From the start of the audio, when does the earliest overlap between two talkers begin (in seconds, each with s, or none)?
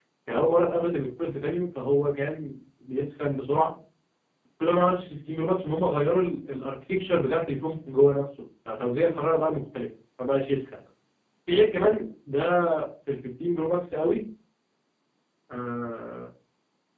none